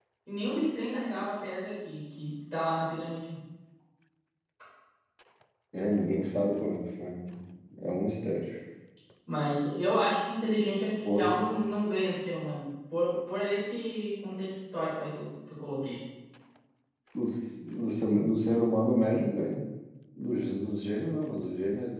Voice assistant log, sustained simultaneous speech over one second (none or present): none